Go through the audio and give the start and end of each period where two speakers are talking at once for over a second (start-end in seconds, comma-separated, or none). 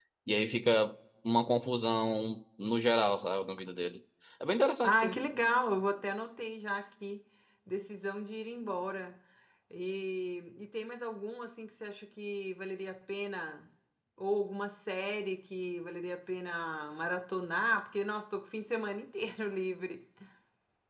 none